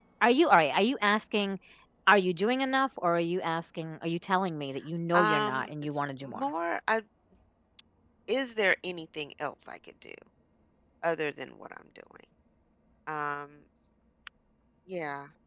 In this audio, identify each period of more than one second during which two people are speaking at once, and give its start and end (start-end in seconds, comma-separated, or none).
5.1-6.4